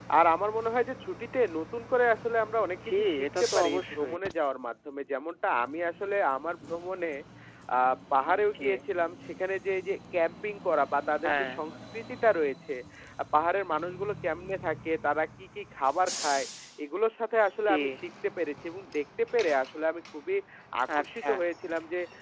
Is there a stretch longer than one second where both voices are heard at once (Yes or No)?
Yes